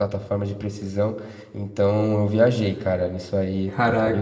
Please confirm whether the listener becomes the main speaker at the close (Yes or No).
No